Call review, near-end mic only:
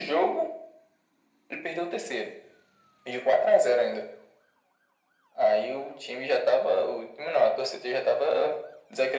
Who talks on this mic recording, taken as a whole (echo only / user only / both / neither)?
echo only